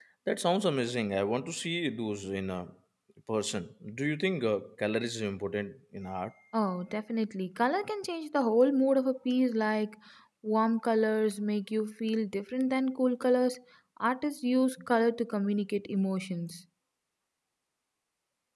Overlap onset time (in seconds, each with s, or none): none